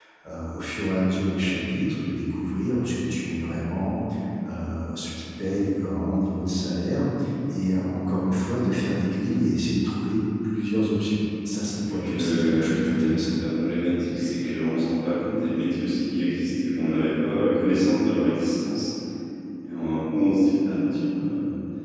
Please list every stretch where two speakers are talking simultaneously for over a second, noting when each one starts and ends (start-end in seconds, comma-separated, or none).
11.9-13.4